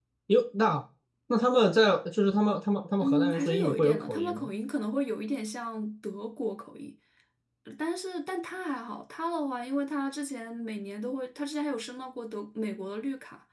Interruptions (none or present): present